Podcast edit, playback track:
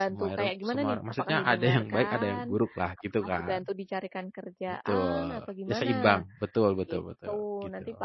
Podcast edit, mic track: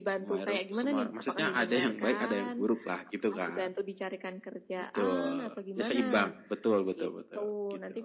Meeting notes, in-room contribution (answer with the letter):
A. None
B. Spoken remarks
A